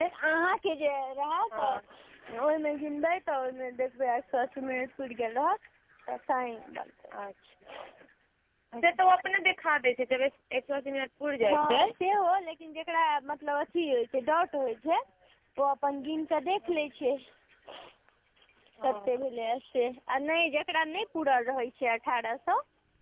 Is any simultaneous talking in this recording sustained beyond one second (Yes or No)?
No